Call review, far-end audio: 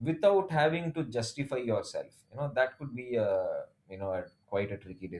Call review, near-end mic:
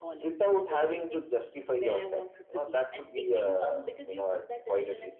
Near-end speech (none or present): present